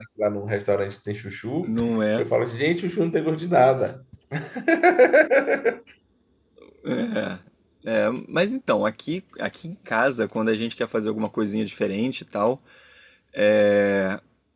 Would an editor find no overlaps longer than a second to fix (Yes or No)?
Yes